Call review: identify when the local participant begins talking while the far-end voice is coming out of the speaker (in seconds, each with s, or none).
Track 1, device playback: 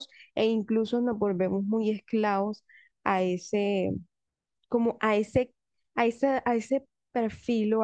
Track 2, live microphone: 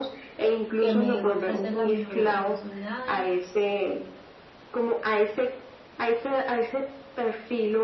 0.8 s